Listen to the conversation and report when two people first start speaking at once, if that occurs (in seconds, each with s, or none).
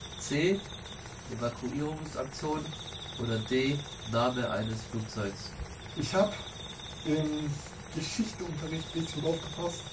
none